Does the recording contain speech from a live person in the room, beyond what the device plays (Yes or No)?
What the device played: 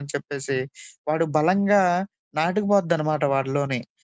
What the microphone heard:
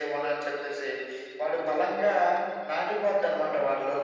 No